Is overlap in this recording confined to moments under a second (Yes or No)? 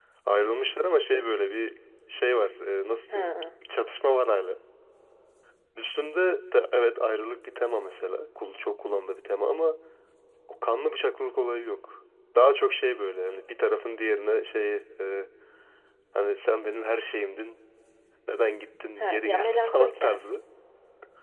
No